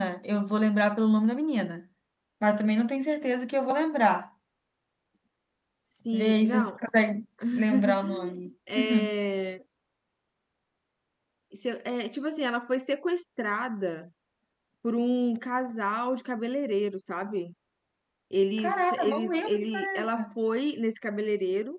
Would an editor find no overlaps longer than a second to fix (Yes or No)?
No